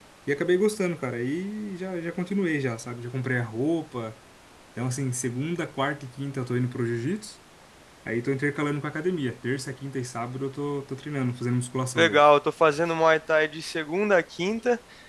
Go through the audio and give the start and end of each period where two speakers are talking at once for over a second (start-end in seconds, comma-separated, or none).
none